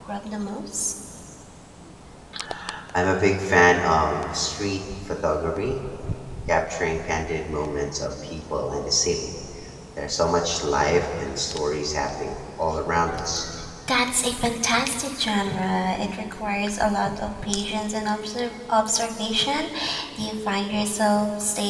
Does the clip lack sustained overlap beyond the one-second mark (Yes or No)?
Yes